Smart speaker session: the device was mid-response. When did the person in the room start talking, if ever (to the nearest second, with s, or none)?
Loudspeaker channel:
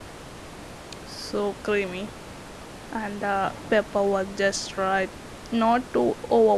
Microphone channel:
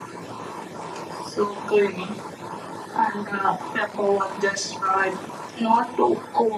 none